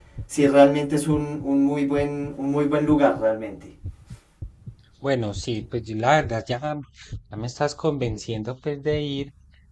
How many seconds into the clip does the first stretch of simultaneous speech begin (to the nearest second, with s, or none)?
none